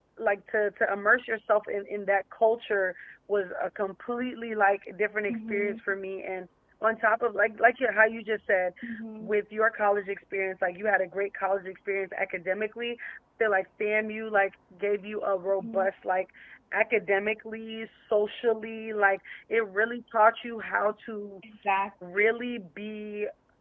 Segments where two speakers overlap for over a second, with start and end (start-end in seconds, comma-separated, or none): none